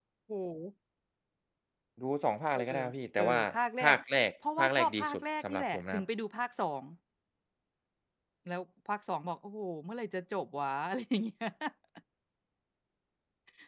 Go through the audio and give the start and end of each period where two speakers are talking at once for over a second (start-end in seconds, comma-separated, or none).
4.6-6.0